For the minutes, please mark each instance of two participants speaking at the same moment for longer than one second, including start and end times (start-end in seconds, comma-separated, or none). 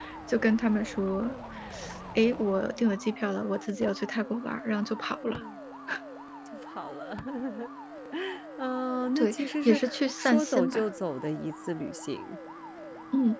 9.2-10.9